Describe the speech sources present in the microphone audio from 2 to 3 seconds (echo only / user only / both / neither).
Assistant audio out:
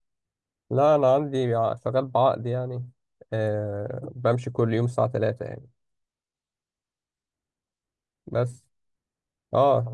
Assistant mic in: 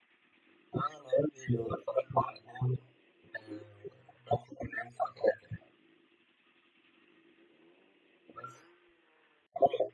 echo only